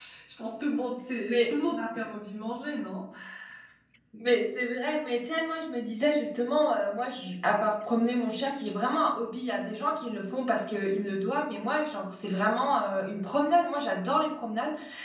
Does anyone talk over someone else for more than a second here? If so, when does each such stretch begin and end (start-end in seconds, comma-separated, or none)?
none